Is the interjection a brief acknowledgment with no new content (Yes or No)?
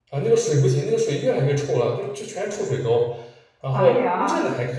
Yes